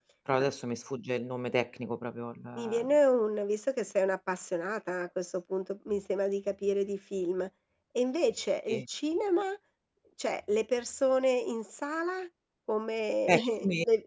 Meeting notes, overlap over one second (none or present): none